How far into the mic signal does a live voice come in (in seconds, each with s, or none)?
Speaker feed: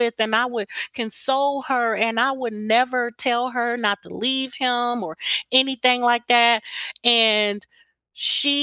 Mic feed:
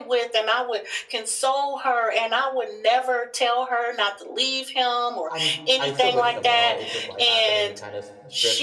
5.3 s